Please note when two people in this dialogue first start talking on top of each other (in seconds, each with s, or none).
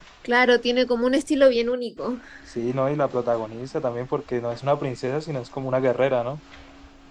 none